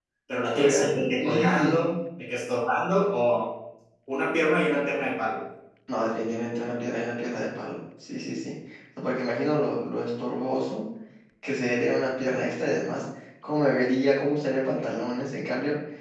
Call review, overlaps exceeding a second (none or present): present